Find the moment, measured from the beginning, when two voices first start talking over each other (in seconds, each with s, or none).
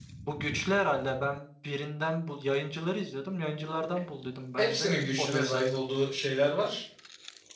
4.6 s